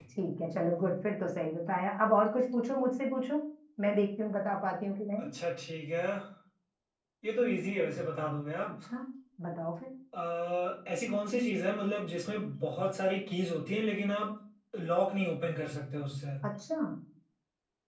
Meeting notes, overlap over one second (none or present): none